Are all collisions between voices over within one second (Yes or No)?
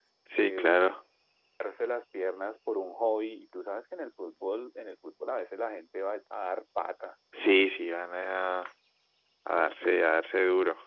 Yes